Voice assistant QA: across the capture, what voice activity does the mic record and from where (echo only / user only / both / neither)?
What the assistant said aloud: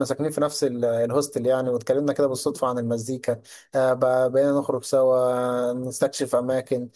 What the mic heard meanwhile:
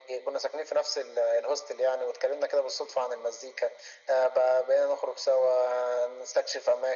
echo only